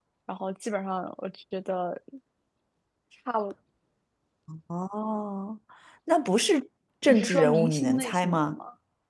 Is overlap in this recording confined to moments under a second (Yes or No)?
No